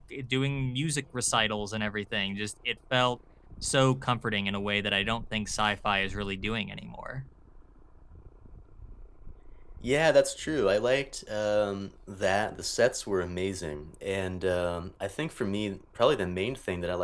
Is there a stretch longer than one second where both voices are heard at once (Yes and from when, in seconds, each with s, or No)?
No